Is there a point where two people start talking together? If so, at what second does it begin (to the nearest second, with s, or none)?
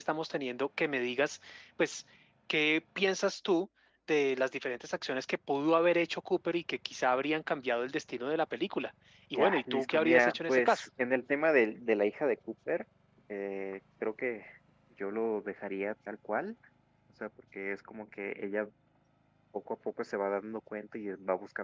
9 s